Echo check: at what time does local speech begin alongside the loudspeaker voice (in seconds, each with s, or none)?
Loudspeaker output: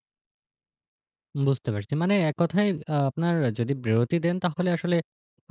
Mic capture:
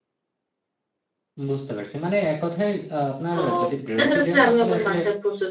3.4 s